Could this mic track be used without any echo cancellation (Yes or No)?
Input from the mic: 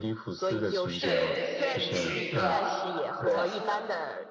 No